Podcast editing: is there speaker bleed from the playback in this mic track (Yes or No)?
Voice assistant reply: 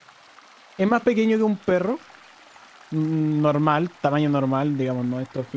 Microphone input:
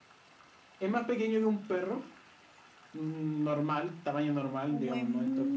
Yes